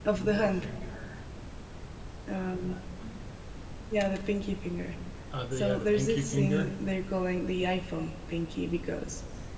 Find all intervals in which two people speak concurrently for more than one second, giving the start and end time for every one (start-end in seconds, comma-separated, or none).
5.5-6.7